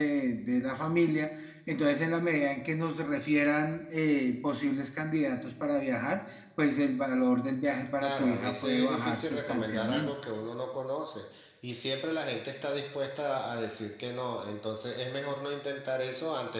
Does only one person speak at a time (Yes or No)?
No